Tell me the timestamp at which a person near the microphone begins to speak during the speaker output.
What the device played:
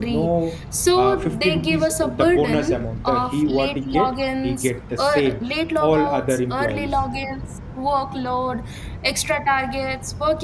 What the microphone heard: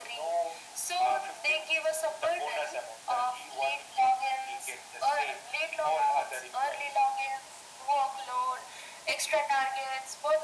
none

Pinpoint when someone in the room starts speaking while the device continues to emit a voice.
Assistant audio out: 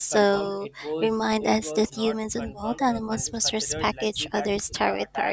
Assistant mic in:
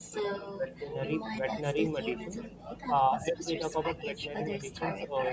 1 s

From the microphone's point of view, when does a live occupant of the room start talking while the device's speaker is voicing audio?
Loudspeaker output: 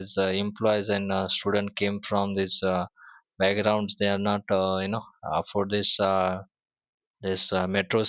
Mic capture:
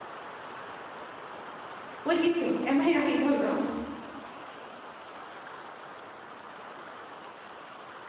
2 s

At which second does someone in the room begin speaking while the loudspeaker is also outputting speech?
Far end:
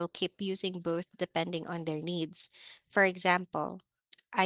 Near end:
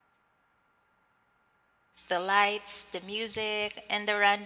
2 s

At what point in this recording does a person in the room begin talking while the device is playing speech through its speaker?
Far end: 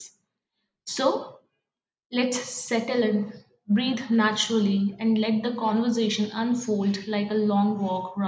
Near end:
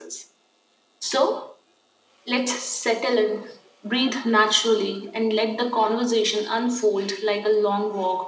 none

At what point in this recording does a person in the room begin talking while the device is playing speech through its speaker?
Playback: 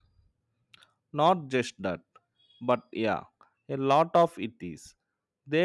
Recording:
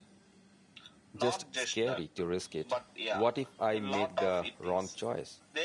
1 s

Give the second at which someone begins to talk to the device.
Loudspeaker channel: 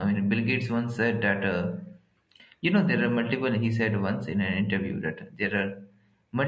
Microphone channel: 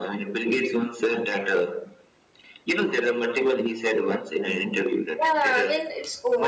5 s

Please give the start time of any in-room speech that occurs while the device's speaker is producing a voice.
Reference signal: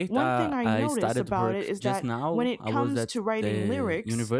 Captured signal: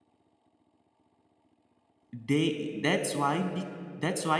2 s

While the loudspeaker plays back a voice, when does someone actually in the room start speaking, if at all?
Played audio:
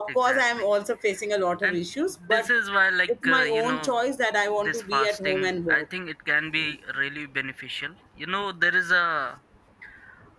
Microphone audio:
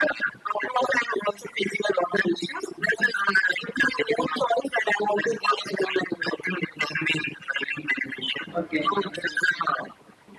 9 s

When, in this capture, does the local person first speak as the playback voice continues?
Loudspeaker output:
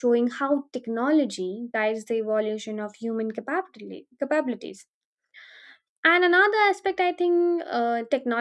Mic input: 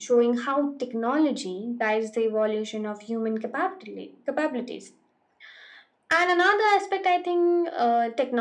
none

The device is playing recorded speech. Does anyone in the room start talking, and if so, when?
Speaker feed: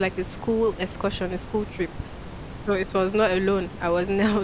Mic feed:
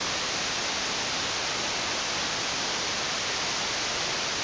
none

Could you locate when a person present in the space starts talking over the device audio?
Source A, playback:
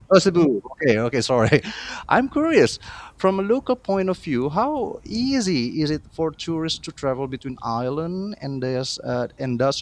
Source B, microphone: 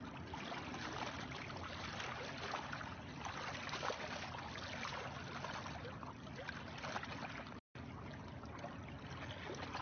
none

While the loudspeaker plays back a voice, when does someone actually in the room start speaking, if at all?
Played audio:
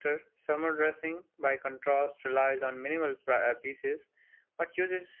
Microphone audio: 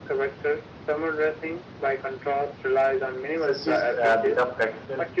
3 s

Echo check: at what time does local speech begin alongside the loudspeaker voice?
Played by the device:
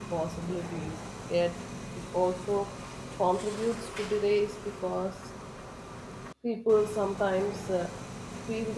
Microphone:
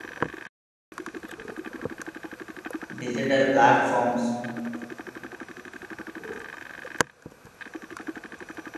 3 s

